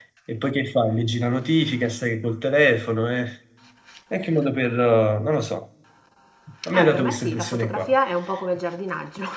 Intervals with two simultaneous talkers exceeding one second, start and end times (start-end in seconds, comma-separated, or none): 6.7-7.9